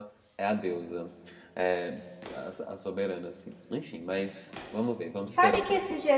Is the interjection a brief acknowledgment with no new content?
No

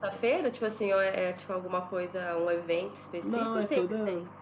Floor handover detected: Yes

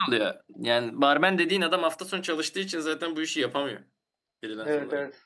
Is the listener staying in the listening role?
No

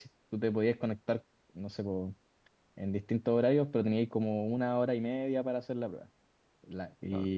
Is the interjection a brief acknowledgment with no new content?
Yes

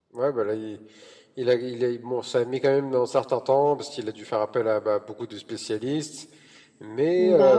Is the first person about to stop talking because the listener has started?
No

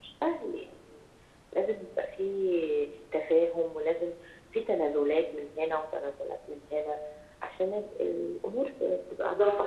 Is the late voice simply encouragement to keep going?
No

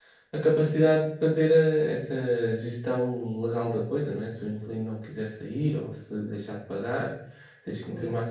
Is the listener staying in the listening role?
Yes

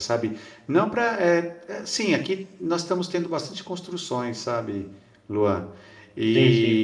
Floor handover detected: No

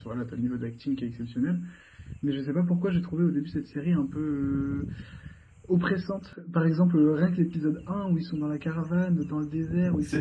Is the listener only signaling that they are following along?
Yes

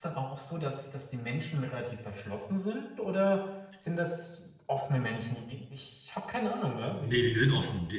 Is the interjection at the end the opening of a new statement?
Yes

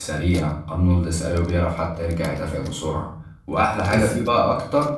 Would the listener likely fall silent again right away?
Yes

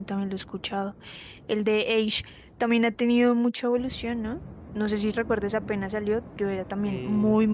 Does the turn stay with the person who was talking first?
Yes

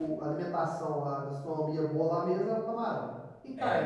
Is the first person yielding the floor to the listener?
Yes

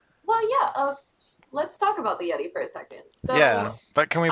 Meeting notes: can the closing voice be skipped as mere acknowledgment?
No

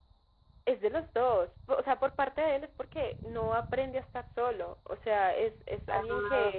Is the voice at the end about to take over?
No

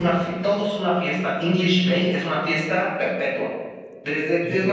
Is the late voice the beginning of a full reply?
No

